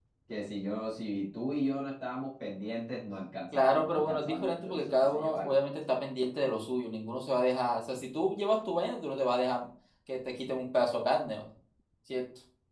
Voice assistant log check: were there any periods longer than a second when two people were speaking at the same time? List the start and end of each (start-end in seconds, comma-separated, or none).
3.5-5.5